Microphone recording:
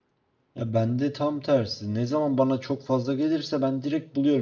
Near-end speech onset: 0.5 s

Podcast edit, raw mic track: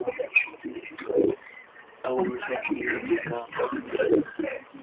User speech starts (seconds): 2.0 s

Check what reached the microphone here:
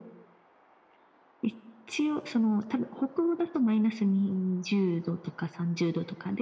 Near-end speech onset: none

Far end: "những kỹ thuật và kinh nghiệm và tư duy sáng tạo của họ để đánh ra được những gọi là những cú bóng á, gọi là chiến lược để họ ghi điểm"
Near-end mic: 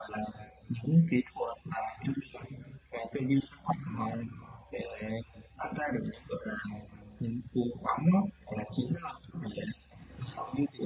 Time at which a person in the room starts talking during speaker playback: none

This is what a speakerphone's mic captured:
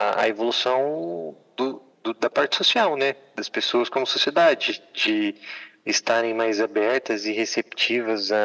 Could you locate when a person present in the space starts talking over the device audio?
none

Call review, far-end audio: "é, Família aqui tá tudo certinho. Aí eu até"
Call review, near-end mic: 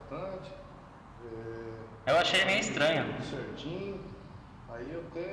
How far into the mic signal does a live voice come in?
2.1 s

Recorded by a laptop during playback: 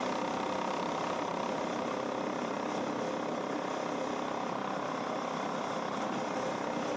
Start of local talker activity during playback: none

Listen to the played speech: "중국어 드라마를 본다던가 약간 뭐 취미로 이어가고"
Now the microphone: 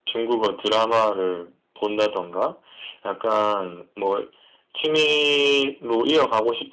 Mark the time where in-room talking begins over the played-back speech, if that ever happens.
none

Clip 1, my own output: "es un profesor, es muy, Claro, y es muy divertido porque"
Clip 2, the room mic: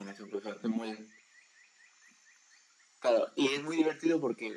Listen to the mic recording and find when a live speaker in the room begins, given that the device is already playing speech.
none

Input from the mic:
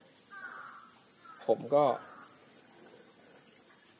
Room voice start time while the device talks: 1.4 s

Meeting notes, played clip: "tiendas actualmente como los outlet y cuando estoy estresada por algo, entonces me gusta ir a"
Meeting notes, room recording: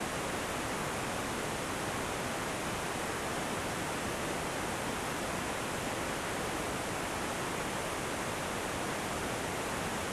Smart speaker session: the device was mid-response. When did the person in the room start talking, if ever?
none

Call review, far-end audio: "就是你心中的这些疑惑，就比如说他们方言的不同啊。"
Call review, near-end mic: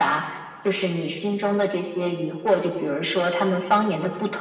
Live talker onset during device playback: none

